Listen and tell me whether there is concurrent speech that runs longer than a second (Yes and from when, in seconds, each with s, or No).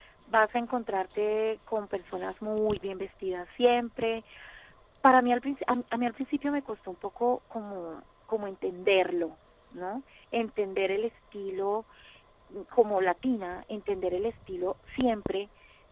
No